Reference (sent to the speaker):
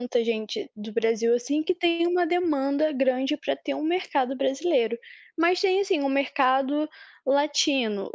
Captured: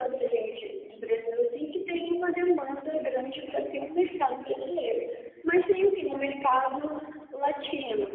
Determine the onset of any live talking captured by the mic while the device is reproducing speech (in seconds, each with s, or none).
none